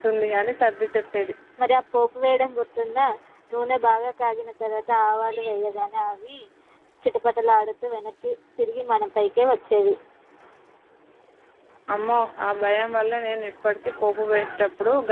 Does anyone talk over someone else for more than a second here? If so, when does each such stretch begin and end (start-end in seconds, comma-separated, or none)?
none